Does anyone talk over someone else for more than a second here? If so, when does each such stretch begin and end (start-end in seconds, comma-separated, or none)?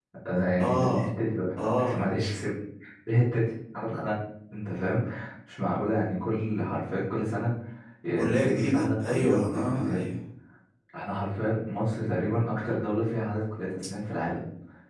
8.2-10.0